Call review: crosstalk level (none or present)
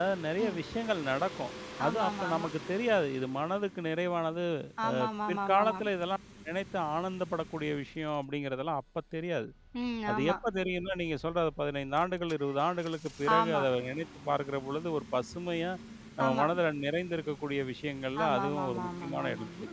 present